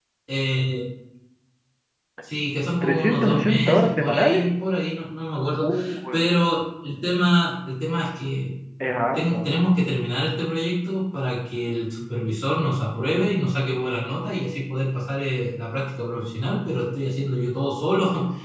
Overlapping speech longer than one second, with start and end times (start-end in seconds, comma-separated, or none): 2.8-4.4